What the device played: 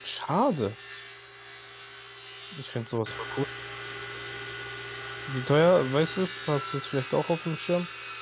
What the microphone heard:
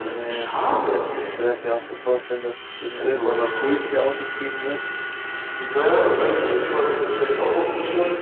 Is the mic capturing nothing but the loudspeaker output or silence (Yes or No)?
No